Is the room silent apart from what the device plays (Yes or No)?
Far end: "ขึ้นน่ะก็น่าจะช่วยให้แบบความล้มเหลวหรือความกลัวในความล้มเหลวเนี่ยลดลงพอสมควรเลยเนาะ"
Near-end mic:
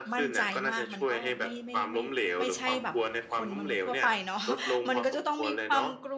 No